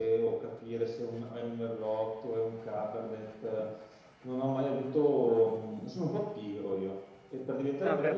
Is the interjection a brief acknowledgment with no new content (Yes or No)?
Yes